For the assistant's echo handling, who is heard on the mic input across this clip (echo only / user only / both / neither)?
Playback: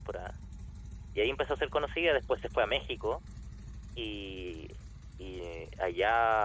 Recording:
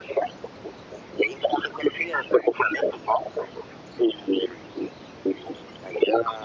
echo only